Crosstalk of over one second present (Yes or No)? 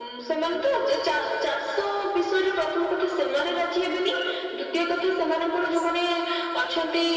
No